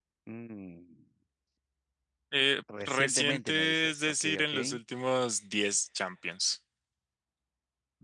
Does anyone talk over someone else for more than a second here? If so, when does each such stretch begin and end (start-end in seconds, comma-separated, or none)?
2.8-4.5